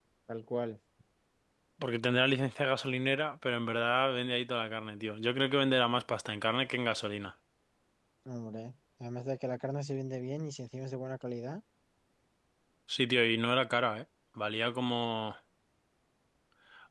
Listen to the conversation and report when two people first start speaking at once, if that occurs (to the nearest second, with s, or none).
none